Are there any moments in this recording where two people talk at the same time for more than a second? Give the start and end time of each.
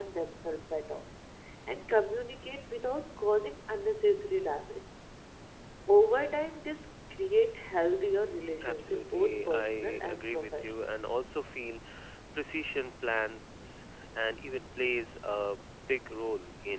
8.6-10.9

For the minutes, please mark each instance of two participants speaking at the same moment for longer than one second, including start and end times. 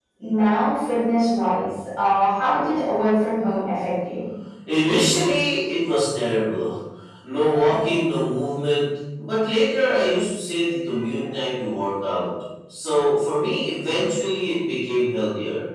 none

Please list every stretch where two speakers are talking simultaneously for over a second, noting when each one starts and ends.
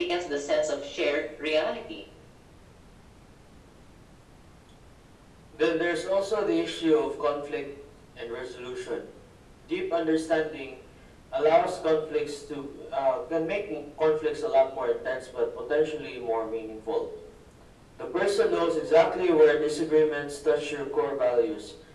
none

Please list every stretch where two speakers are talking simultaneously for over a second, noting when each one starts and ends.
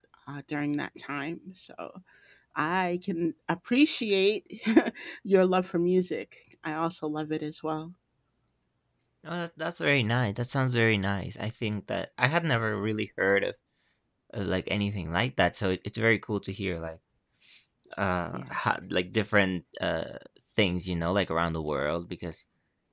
none

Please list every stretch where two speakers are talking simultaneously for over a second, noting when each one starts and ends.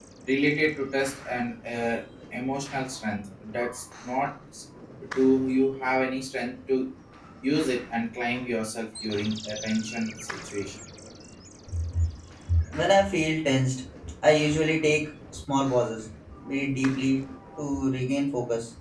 none

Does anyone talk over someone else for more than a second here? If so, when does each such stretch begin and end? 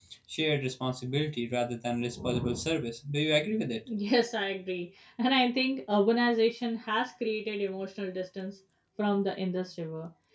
none

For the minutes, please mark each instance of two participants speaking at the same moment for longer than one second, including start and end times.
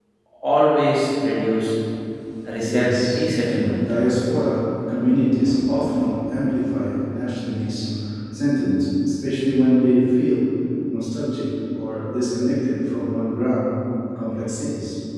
2.6-3.9

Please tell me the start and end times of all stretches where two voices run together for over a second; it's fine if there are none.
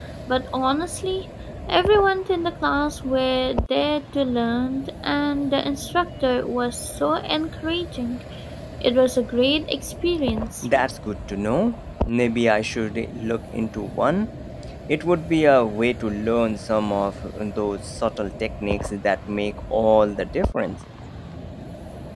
none

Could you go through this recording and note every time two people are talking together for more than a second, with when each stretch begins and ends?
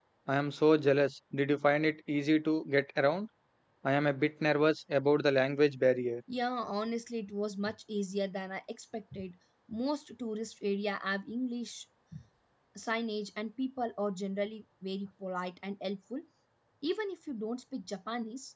none

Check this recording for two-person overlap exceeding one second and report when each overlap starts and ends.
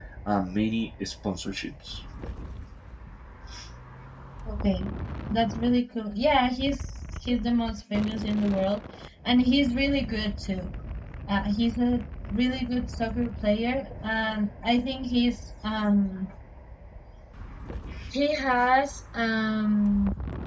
none

